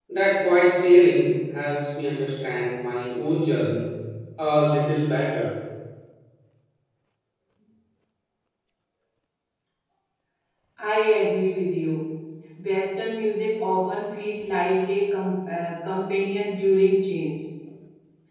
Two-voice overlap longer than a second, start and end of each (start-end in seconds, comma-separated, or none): none